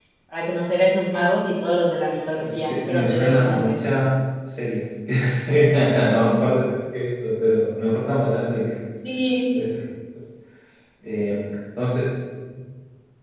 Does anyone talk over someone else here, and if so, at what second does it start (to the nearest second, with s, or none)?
2 s